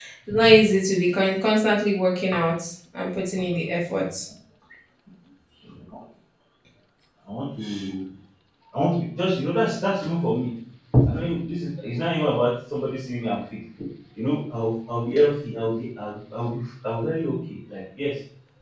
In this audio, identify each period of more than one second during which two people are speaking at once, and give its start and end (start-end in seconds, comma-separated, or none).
none